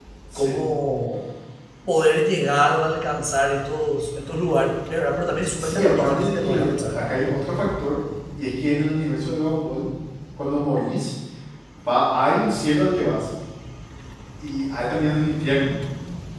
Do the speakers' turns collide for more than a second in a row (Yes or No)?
Yes